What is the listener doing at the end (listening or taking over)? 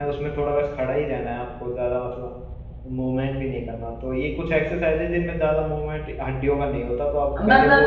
taking over